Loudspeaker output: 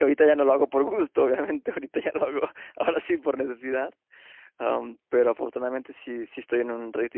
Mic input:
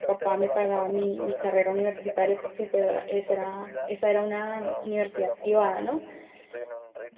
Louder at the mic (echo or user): user